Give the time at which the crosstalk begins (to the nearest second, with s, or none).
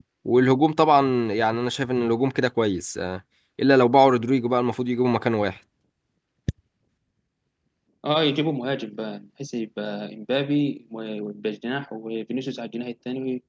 none